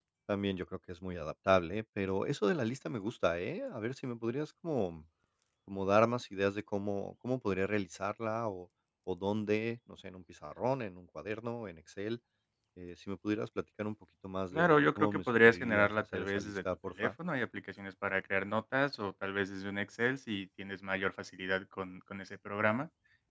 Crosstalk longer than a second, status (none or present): present